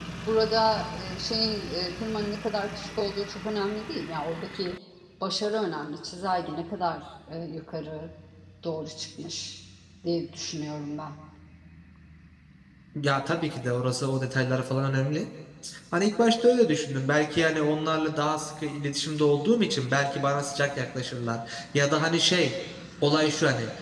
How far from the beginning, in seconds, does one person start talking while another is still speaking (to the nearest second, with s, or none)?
none